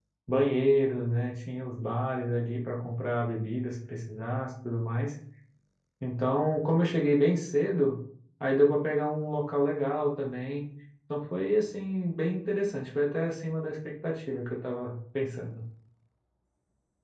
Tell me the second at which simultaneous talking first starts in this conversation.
none

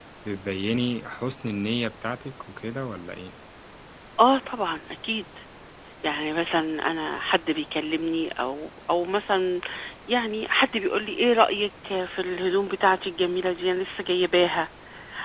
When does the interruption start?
none

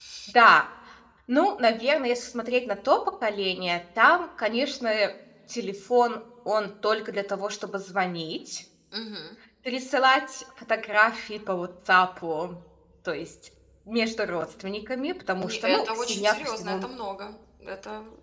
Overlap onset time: 15.4 s

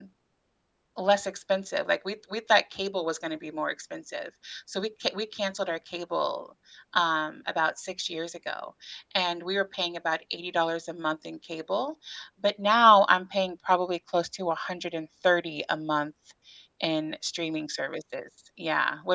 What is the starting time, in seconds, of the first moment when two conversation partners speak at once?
none

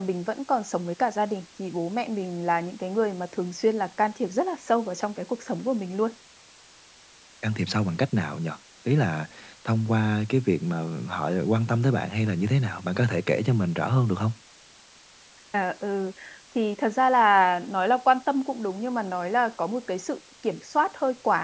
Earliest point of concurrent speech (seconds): none

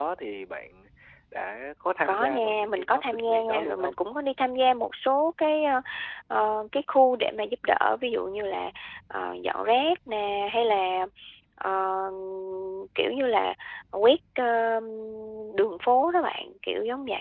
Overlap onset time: 2.0 s

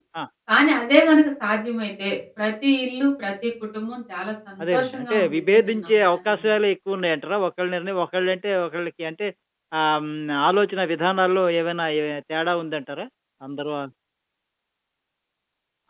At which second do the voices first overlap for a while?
4.6 s

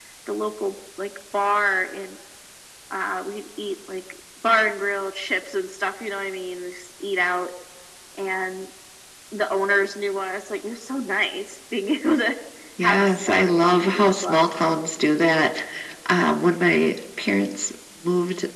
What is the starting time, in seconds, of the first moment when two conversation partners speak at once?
12.8 s

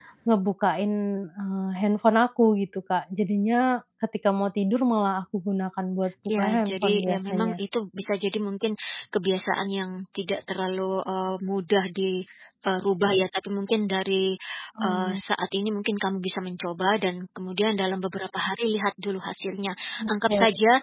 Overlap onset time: 6.4 s

